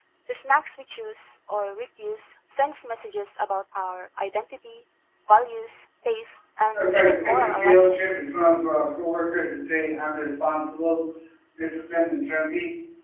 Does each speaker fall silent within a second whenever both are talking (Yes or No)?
No